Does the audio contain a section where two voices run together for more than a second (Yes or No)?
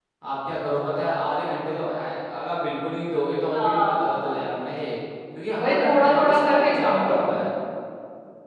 Yes